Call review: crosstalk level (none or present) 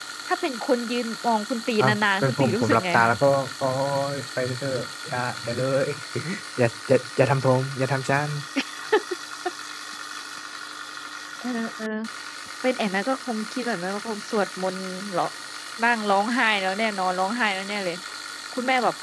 present